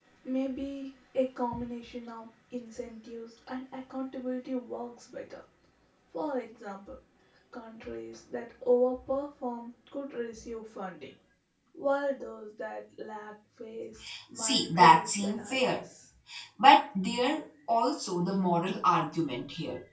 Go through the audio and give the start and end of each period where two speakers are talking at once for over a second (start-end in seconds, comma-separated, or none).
14.4-15.6